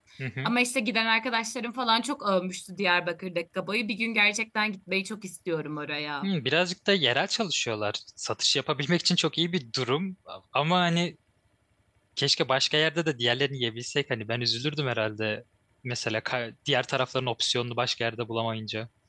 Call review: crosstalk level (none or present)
none